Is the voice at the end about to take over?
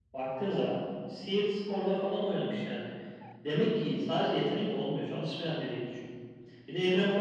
No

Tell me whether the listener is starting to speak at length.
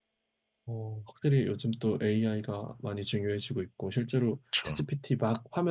No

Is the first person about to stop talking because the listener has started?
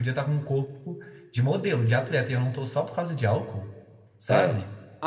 Yes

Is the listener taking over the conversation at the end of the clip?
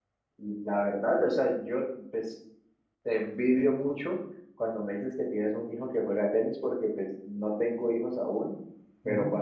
No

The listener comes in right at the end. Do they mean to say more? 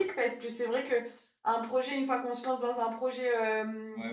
Yes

